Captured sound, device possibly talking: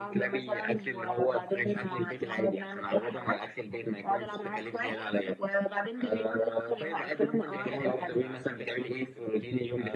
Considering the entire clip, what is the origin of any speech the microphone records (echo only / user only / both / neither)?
both